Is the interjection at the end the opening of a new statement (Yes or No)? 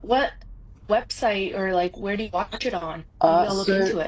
Yes